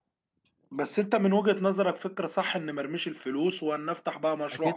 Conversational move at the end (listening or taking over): taking over